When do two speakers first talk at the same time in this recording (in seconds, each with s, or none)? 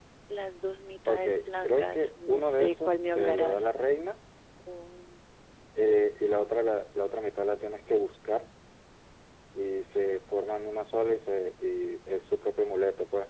1.1 s